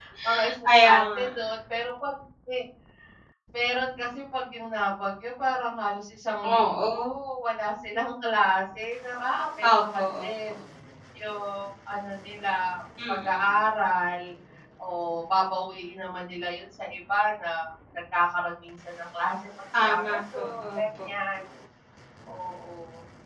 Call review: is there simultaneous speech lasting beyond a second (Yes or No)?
Yes